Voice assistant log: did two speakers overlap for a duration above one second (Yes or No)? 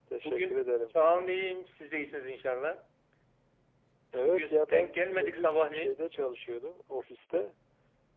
Yes